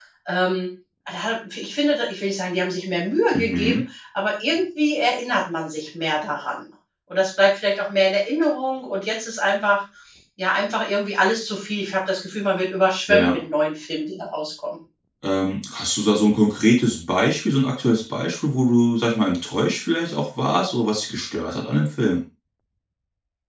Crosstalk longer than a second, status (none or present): none